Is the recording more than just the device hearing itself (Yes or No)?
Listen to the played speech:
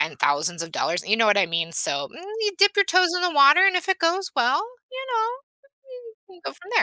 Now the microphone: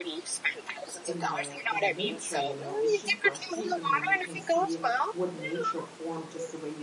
Yes